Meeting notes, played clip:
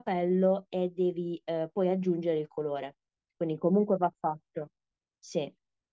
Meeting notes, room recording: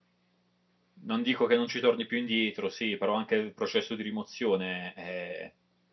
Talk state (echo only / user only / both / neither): user only